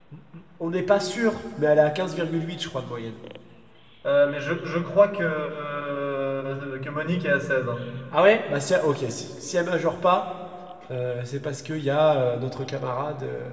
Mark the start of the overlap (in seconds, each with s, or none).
none